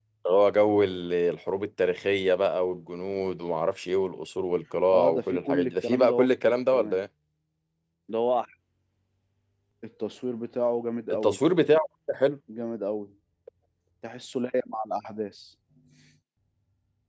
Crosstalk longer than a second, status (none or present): present